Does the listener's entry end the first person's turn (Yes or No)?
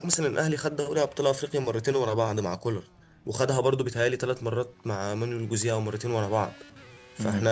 No